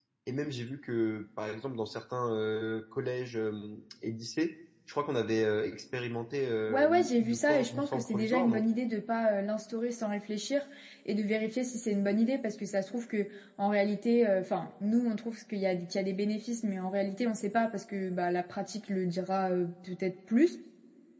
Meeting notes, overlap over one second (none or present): present